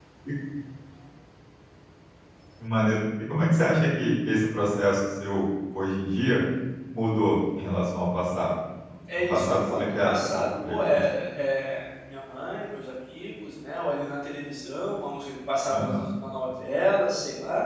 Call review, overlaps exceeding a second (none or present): present